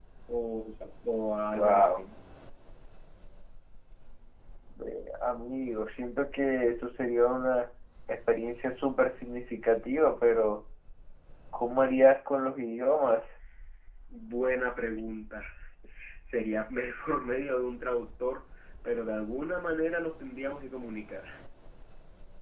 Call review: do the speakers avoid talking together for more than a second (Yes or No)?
Yes